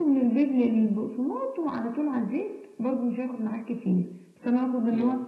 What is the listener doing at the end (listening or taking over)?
listening